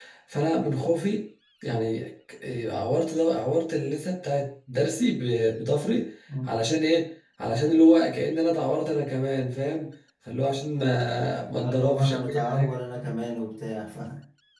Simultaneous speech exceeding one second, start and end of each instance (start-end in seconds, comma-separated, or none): 11.5-12.7